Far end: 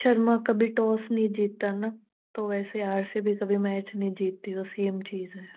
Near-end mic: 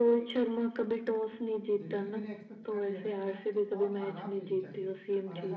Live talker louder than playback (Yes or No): No